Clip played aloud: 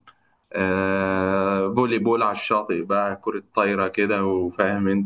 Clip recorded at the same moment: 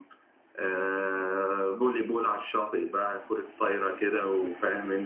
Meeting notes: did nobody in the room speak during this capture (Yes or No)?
Yes